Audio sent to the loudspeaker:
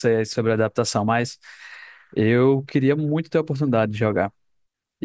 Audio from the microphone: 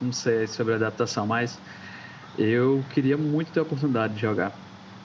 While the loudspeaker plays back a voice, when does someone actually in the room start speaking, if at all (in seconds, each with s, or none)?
none